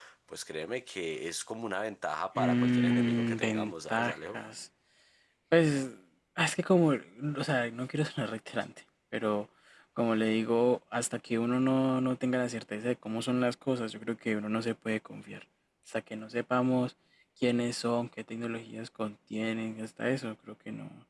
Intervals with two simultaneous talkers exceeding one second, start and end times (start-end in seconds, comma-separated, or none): 2.4-4.4